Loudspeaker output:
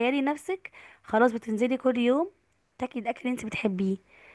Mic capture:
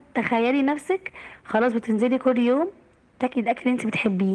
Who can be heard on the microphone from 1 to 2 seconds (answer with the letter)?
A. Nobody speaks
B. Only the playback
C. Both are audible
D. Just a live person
B